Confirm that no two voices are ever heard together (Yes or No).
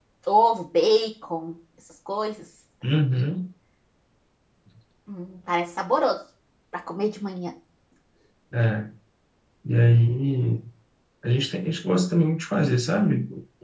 Yes